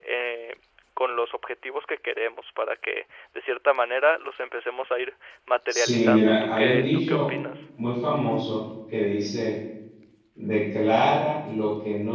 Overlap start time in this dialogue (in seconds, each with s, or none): 5.7 s